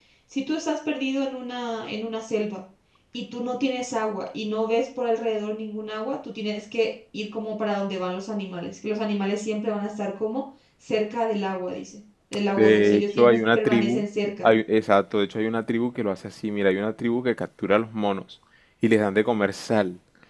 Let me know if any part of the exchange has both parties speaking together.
Yes, from 12.6 s

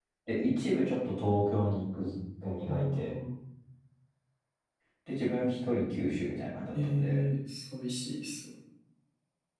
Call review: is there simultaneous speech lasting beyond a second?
No

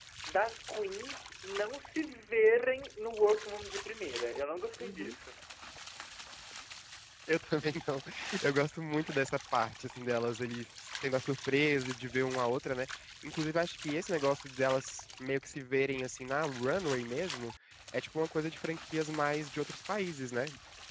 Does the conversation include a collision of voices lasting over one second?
No

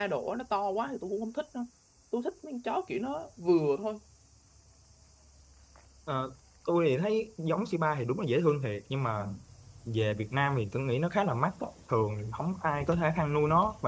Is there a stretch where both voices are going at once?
No

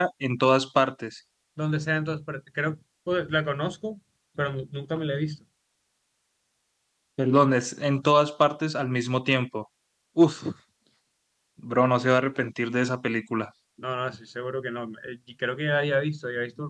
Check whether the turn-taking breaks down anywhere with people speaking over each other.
No

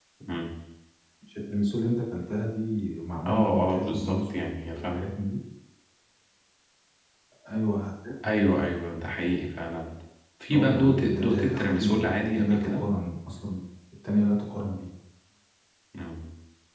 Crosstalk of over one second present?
Yes, from 3.3 s

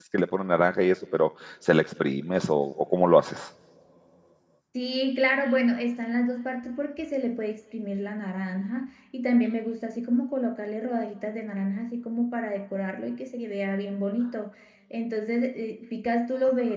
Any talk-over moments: No

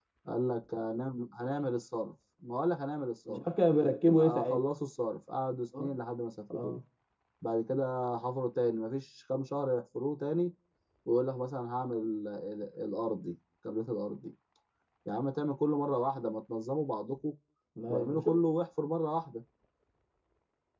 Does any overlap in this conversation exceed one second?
No

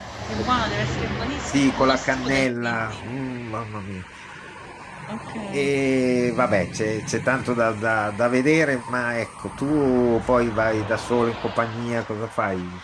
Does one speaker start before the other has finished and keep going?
Yes, from 1.5 s

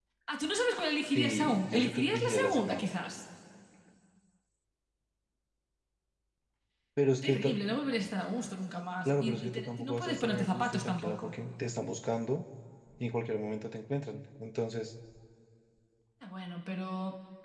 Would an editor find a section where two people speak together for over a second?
Yes, from 1.1 s

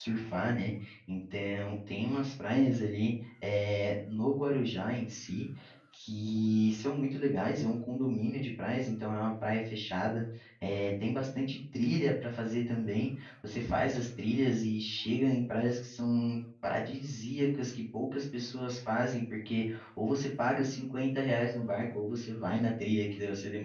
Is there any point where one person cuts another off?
No

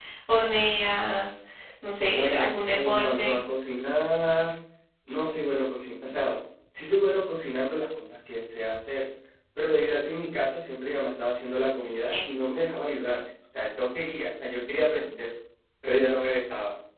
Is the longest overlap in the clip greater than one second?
Yes, from 2.1 s

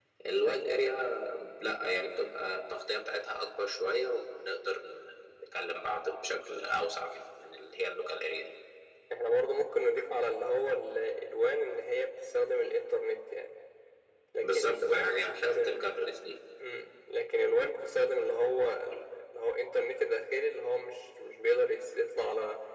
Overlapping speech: Yes, from 14.4 s

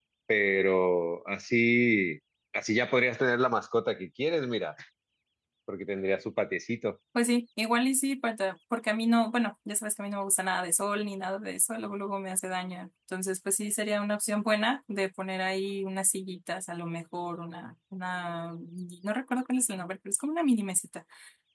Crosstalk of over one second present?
No

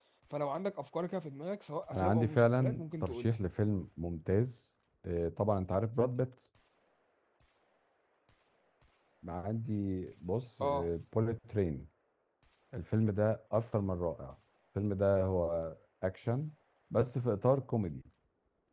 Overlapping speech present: Yes, from 1.9 s

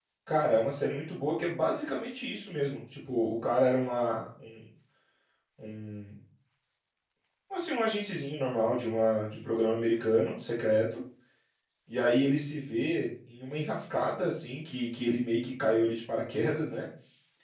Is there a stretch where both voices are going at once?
No

